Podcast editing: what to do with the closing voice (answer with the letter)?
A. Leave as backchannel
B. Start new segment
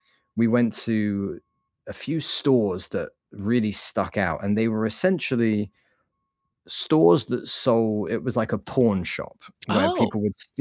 A